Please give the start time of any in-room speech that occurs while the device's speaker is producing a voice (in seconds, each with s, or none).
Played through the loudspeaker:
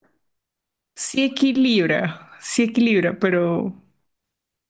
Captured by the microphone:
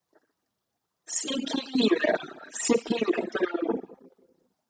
none